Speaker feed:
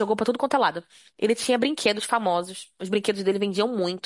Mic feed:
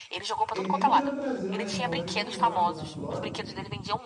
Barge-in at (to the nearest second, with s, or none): 1 s